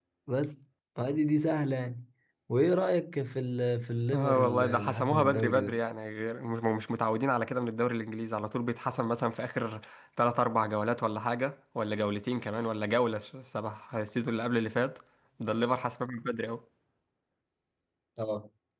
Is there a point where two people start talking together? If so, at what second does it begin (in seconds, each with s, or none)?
4.1 s